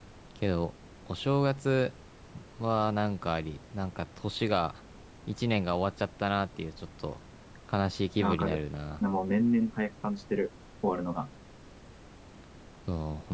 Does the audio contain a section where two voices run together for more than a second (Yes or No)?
No